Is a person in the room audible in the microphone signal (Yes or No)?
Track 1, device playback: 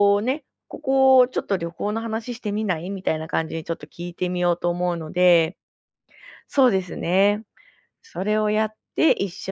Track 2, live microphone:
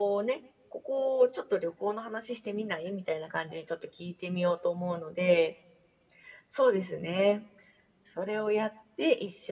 No